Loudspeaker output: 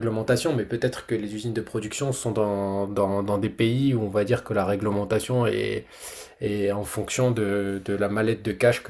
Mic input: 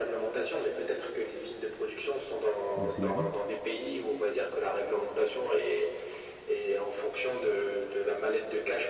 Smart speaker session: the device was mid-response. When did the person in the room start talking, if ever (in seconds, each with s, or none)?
2.8 s